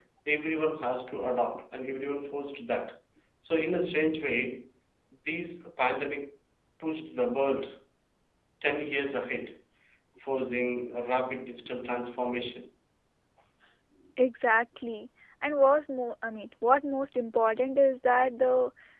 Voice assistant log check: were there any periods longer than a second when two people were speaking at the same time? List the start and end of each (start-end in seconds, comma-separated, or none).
none